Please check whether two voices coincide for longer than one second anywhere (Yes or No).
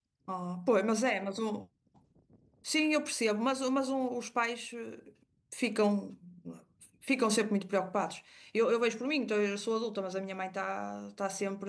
No